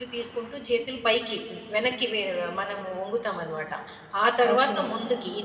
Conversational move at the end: listening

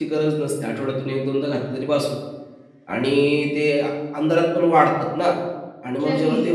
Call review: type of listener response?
listening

